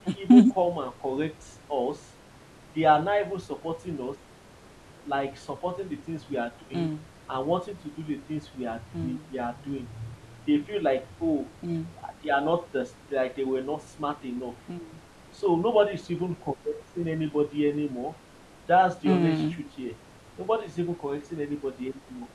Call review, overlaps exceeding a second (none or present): none